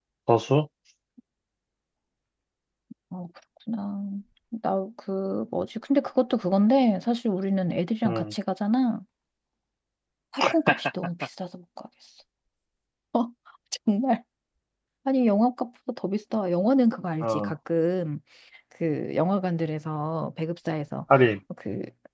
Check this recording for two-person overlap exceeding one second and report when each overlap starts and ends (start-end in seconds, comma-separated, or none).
none